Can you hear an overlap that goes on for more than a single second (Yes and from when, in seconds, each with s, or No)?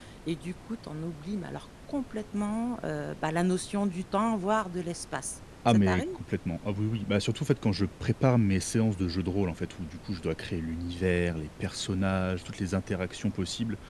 No